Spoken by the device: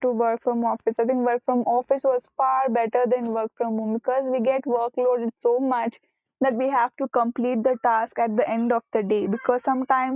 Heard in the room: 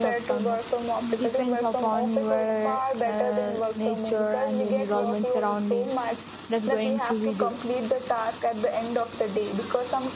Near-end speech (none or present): present